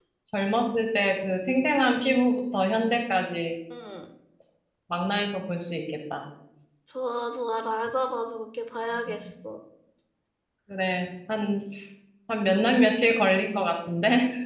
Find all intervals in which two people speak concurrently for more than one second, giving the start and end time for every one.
none

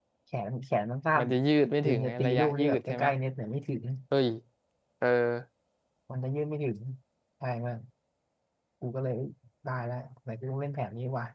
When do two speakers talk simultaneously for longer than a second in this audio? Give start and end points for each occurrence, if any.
1.8-3.1

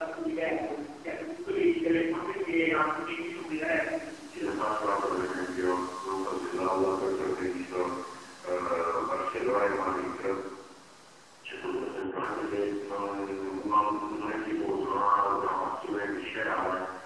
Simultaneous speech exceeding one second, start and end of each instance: none

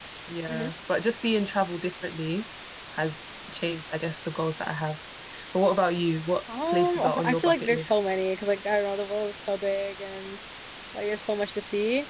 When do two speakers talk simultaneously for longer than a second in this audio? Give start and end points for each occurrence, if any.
6.7-8.0

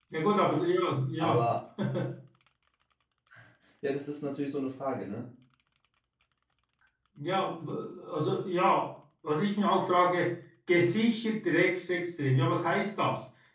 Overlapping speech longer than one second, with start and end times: none

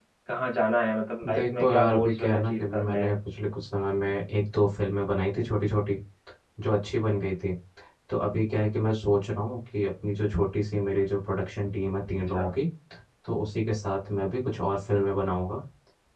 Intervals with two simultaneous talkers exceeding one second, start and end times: 1.3-3.1

